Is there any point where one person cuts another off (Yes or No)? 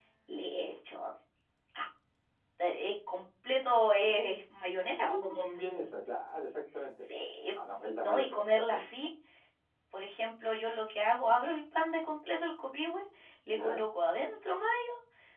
Yes